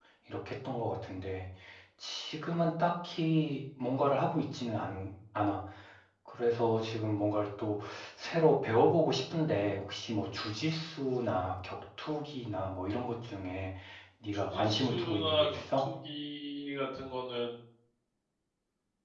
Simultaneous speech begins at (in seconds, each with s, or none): 14.5 s